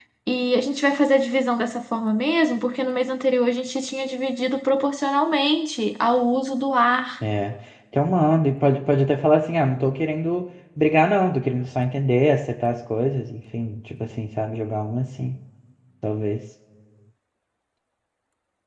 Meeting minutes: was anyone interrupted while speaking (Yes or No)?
No